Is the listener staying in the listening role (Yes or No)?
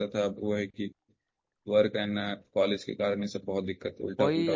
No